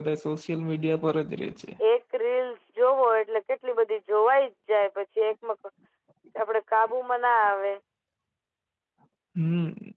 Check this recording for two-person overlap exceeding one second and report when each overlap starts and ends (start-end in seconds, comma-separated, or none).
none